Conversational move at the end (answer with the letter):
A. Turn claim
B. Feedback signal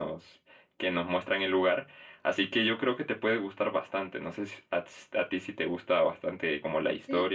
A